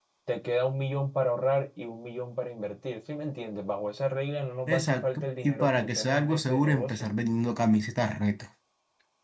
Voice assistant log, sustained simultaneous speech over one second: present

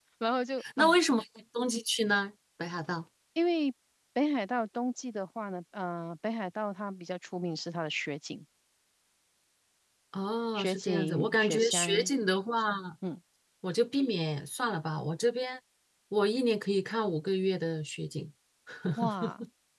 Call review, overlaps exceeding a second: present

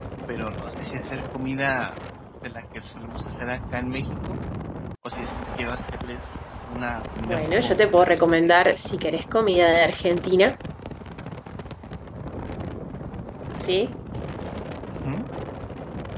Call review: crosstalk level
present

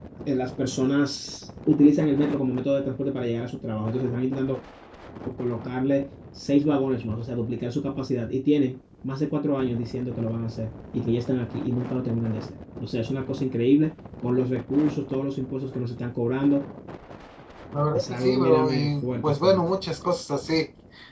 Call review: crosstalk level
present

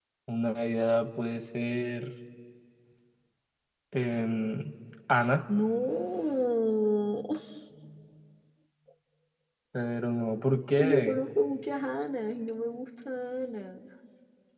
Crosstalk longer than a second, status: none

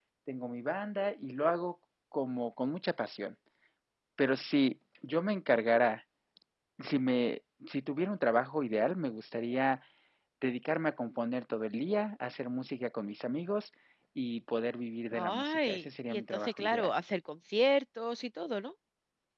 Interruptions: present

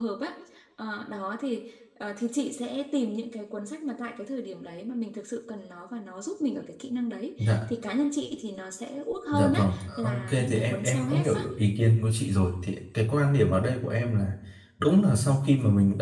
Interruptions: present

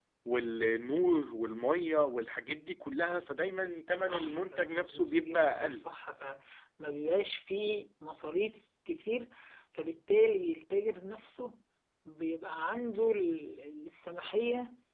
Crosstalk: present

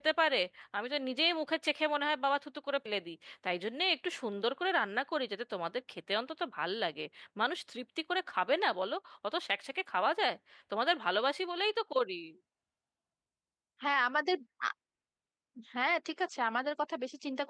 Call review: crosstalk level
none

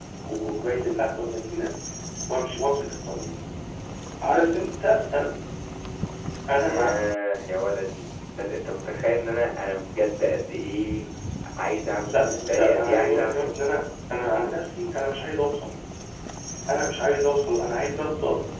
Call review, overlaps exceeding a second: present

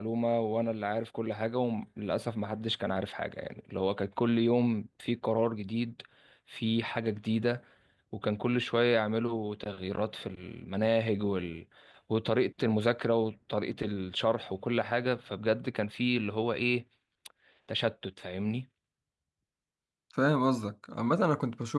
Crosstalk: none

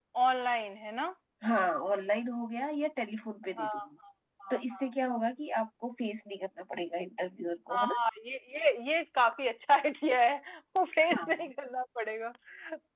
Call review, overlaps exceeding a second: none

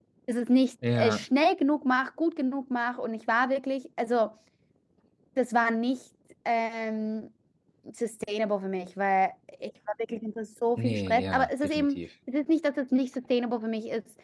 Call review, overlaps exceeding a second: present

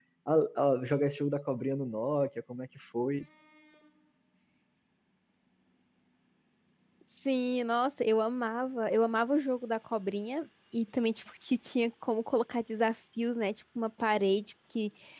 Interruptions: none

